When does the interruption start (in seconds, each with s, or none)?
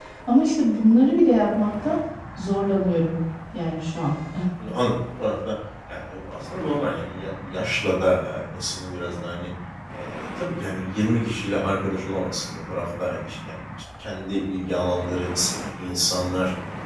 none